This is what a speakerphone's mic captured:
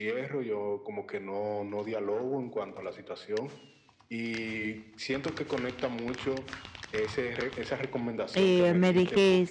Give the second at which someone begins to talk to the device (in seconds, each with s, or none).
8.3 s